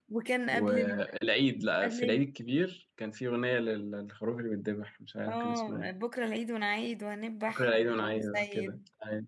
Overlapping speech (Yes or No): Yes